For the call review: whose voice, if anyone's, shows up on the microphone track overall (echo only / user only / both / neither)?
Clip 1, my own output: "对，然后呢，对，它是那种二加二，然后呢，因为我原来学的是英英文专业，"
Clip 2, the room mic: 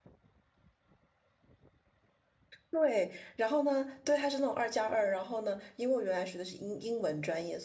echo only